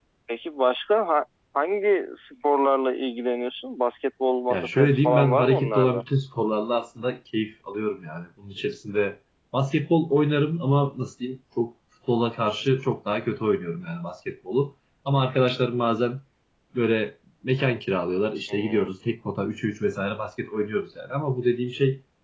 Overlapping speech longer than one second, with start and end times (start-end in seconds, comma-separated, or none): 4.5-6.0